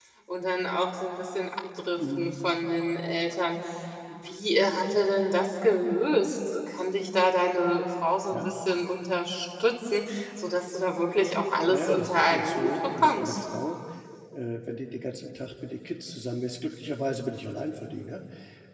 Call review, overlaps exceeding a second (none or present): present